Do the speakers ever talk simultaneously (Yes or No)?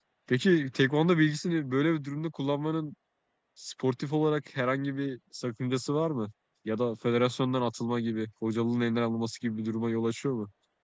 No